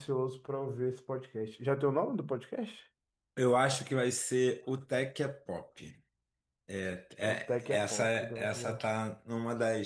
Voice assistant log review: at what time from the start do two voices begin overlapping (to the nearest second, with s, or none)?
7 s